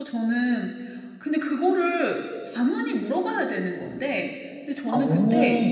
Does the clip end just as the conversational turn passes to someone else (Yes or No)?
No